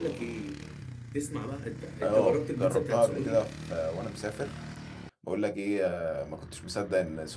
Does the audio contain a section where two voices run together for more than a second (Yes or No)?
Yes